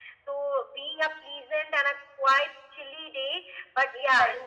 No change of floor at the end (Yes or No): No